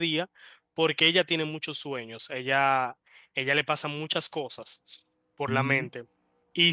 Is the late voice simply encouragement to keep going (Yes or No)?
Yes